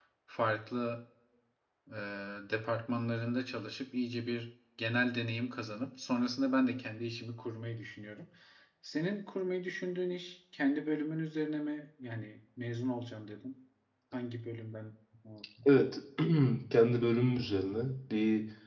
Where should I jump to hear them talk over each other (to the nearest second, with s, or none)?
none